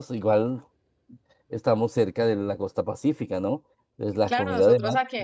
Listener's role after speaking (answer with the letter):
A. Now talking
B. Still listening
A